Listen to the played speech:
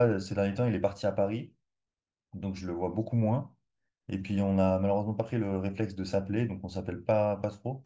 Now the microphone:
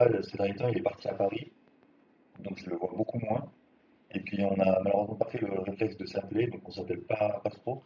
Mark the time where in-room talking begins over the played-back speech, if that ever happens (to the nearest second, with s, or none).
none